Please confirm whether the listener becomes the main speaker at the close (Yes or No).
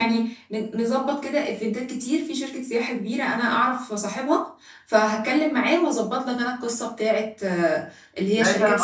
Yes